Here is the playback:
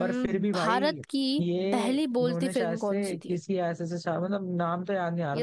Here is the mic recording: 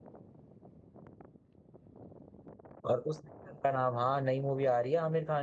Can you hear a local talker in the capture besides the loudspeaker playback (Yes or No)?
Yes